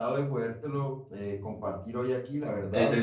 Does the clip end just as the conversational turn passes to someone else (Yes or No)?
Yes